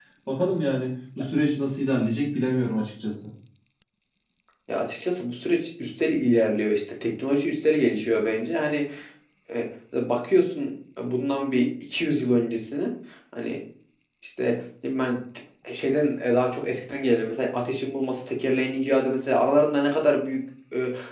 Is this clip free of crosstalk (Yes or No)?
Yes